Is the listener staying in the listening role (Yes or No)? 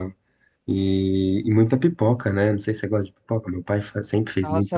No